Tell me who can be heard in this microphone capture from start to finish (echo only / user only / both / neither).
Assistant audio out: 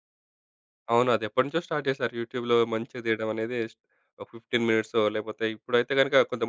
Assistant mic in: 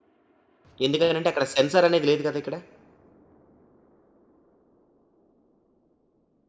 user only